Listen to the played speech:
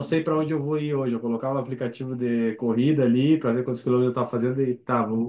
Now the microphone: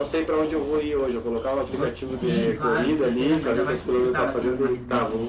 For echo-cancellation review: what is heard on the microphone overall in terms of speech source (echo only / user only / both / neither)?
both